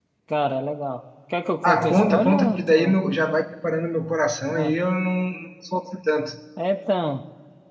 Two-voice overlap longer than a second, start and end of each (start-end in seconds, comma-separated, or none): 1.6-3.0